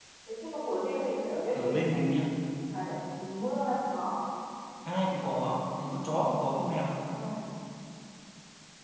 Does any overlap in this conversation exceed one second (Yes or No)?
No